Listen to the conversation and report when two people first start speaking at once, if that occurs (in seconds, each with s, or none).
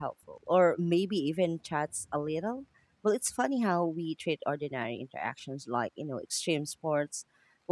none